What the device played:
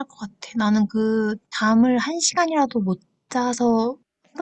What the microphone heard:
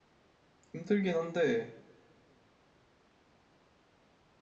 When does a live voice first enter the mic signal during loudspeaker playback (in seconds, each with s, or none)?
0.7 s